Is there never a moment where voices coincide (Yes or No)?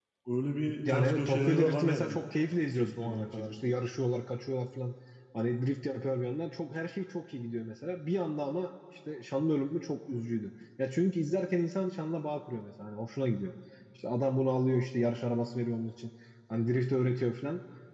No